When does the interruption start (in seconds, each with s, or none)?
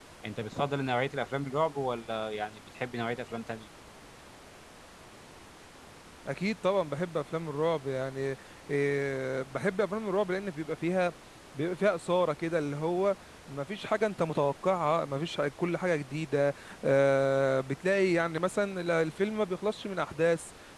none